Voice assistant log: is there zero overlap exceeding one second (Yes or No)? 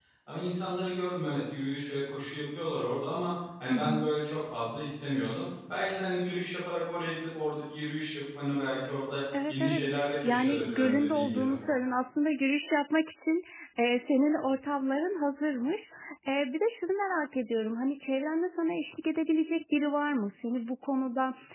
No